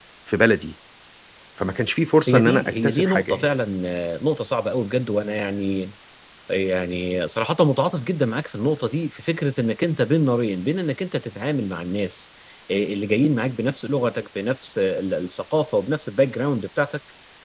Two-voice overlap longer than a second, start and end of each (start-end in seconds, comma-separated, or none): 2.3-3.5